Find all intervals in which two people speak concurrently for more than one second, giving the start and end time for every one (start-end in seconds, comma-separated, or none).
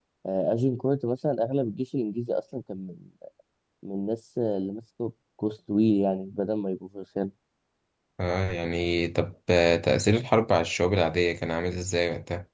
none